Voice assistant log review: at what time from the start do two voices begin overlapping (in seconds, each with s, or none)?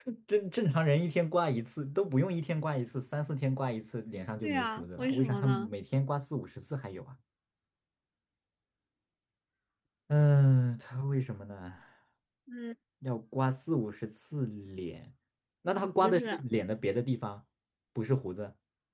4.4 s